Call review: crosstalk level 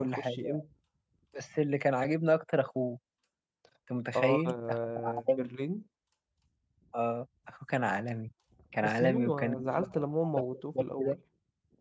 present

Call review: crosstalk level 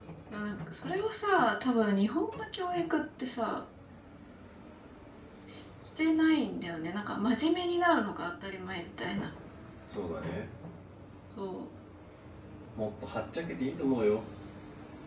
none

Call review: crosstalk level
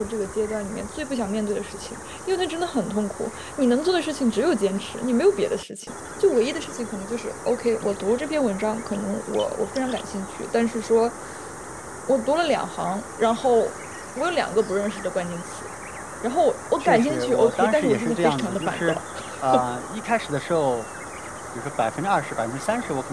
present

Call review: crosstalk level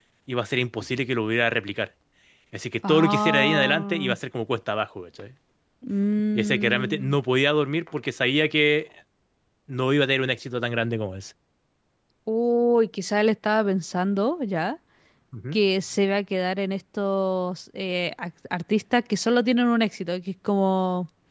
present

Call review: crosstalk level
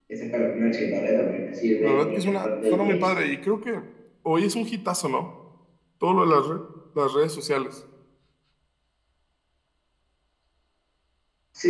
present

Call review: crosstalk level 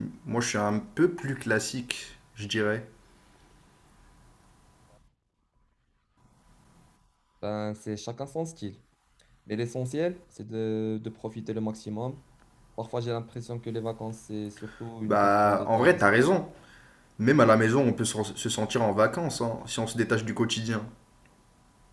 present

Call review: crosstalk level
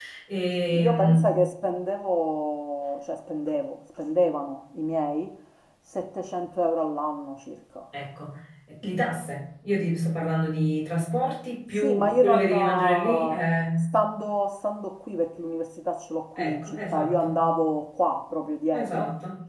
present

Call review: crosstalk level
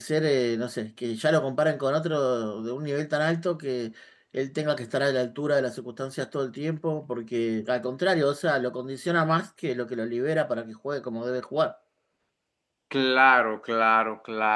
none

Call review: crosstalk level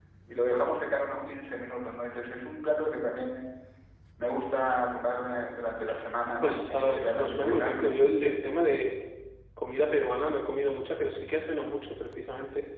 present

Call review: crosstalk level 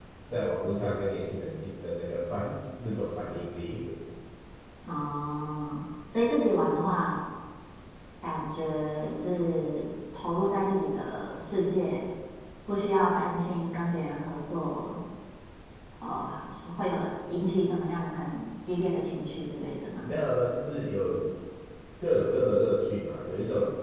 none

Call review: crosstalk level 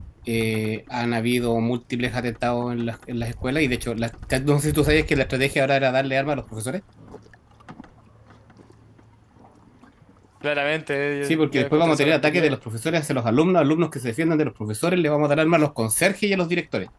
present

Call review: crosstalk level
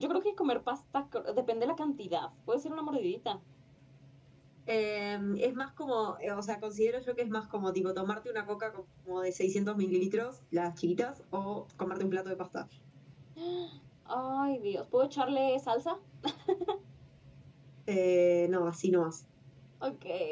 none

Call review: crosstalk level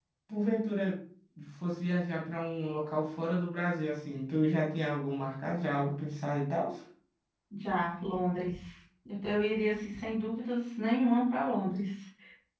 none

